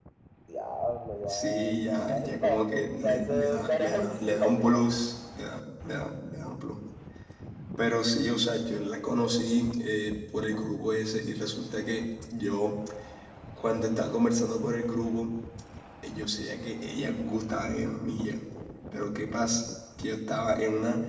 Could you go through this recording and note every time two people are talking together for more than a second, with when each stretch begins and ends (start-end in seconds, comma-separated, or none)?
1.3-2.6, 3.0-4.9